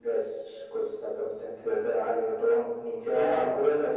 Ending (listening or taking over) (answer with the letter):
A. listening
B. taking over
B